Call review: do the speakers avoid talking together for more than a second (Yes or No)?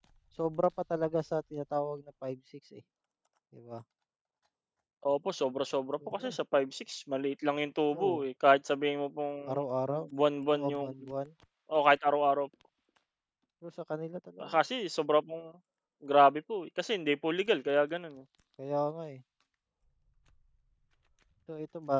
Yes